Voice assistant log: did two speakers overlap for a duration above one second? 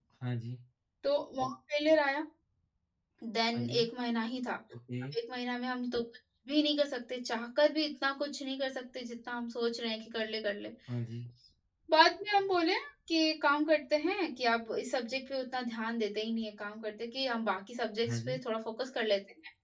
No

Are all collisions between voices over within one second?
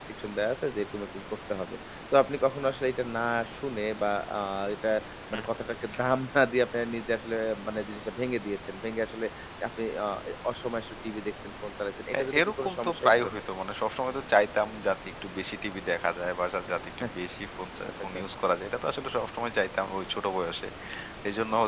No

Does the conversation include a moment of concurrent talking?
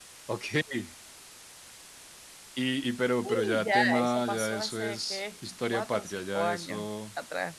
Yes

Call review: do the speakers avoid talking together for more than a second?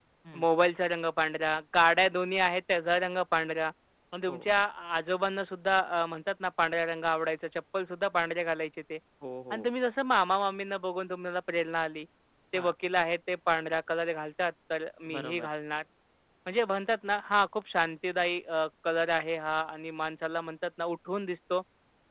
Yes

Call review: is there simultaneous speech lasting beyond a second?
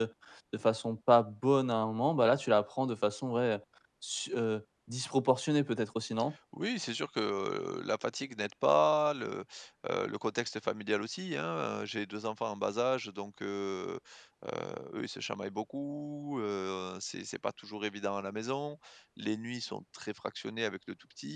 No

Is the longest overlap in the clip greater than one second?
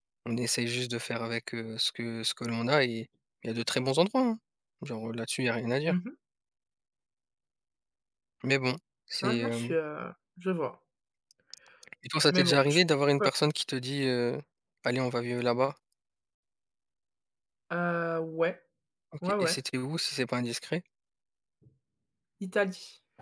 No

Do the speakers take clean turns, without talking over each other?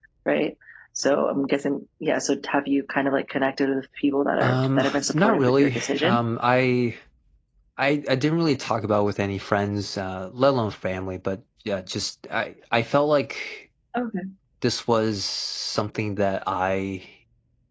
No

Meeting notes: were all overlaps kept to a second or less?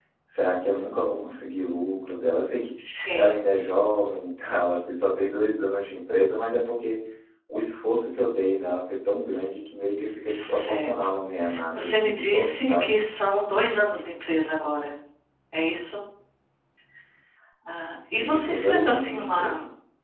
No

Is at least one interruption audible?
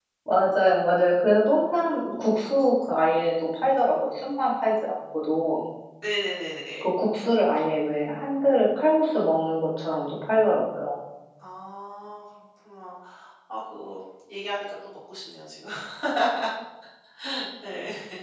No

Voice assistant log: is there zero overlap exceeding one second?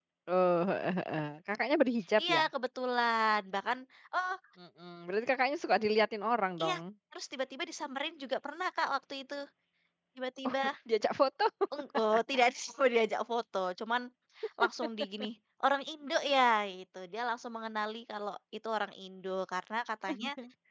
Yes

